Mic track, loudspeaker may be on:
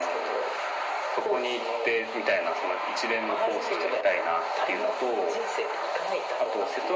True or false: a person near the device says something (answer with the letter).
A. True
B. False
B